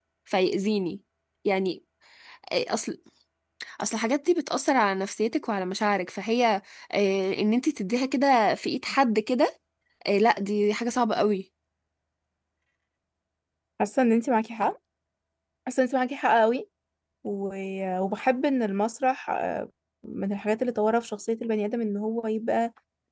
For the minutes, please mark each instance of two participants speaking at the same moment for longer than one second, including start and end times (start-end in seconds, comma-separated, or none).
none